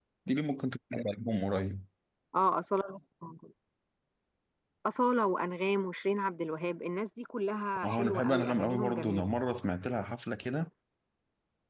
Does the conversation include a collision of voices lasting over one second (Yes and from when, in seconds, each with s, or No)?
Yes, from 7.8 s